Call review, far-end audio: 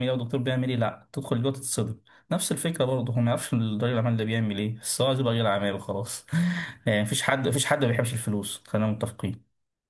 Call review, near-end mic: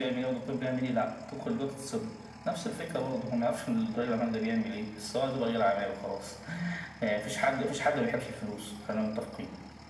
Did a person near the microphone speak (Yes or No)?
No